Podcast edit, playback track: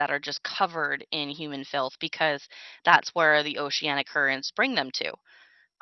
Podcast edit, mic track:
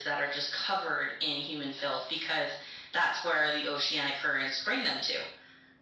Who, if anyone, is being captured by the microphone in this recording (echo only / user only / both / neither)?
echo only